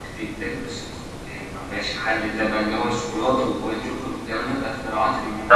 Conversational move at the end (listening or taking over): taking over